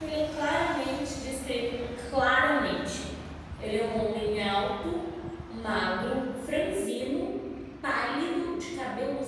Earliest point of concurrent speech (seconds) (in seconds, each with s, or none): none